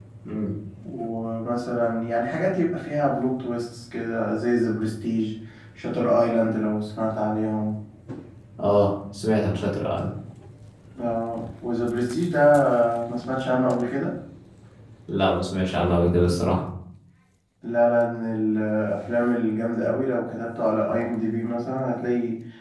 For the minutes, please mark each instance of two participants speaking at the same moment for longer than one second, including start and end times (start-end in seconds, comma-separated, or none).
none